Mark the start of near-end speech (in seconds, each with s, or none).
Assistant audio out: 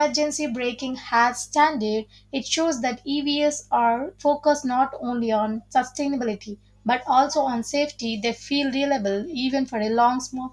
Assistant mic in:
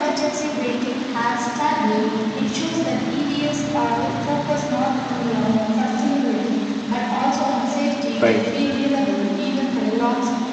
8.2 s